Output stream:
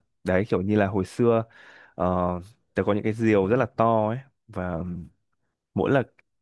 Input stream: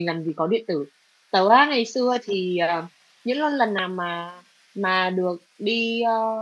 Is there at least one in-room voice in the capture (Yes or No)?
Yes